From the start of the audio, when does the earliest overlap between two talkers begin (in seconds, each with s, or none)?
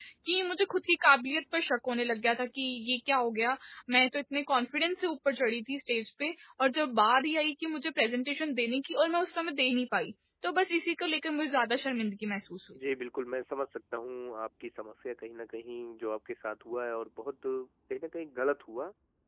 none